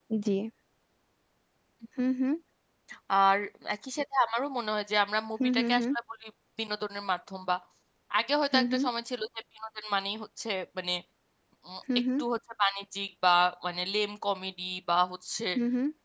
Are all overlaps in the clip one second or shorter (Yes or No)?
Yes